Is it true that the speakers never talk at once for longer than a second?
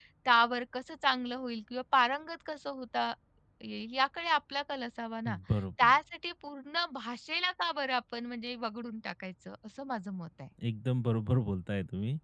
Yes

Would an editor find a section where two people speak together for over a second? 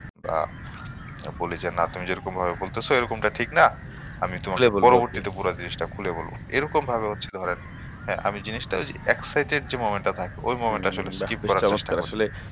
Yes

